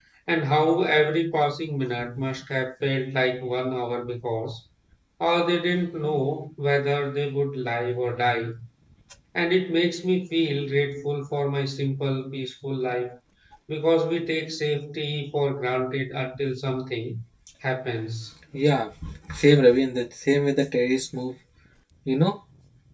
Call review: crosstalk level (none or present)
none